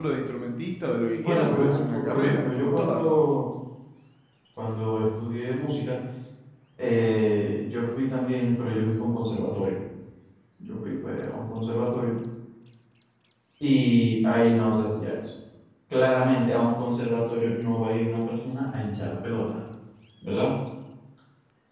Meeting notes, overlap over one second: present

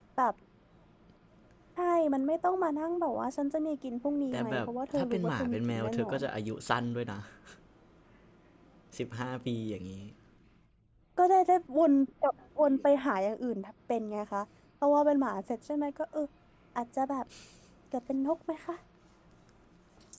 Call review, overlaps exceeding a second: present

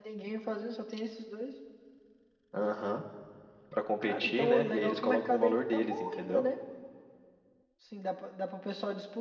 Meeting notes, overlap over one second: present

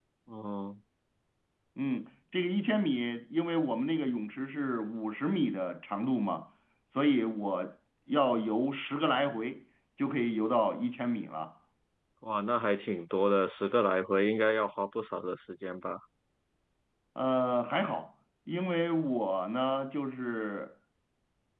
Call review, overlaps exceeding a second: none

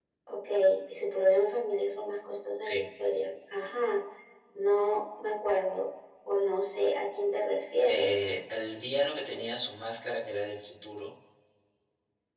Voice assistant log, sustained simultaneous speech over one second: none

